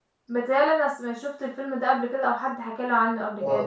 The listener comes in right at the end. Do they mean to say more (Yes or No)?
Yes